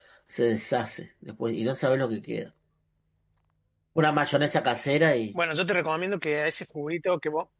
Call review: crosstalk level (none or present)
none